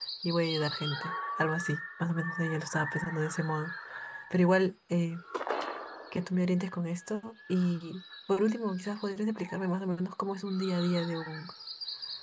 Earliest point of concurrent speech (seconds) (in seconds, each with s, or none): none